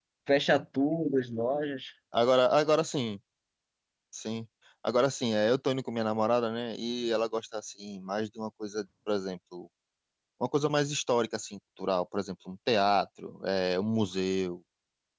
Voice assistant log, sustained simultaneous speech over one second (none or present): none